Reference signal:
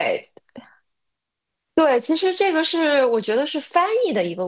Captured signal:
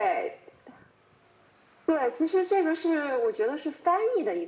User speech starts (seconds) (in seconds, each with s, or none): none